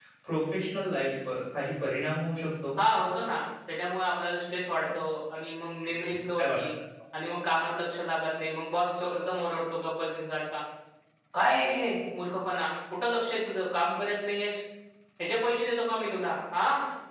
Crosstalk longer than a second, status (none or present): none